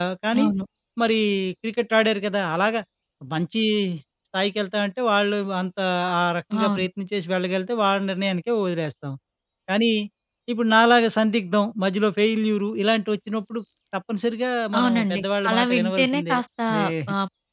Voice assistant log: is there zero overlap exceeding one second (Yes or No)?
No